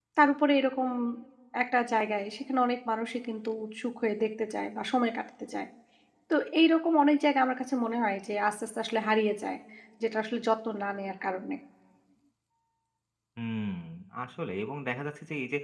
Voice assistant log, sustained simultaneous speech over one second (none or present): none